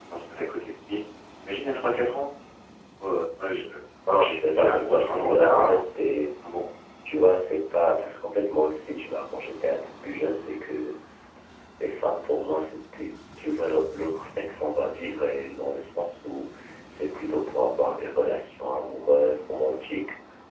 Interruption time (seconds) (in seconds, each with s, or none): 4.2 s